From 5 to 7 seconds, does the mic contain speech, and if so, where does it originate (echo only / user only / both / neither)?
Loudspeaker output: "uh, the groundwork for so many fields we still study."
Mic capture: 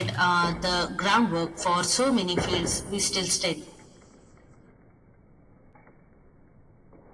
neither